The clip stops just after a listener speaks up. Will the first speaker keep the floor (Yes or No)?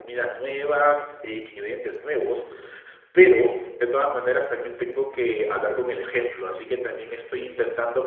Yes